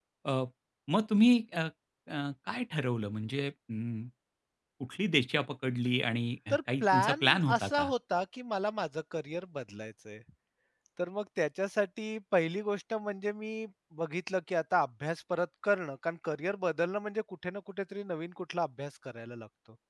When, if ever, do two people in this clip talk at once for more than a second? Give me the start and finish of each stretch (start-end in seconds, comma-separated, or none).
6.5-7.9